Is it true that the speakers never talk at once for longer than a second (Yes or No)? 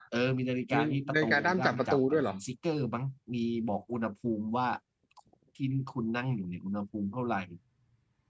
No